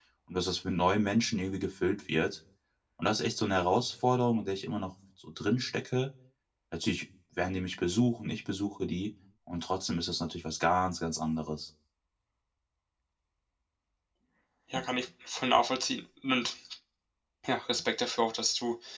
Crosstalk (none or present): none